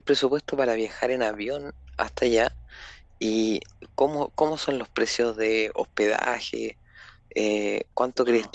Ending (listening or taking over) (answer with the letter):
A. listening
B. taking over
A